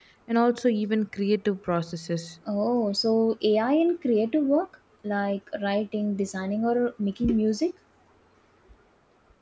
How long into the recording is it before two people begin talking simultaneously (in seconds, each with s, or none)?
none